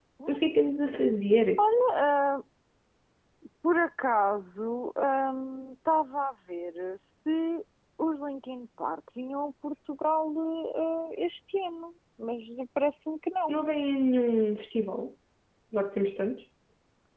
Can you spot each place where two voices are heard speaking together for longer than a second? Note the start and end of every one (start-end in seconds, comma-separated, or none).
none